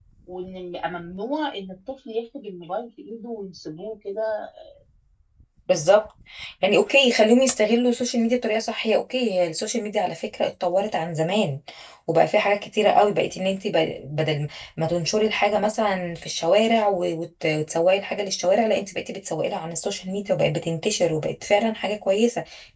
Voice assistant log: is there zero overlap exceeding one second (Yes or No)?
Yes